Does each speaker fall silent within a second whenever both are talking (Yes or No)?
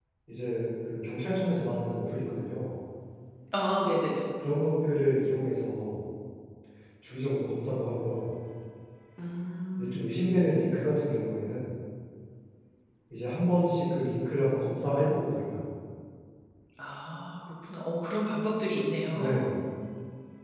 Yes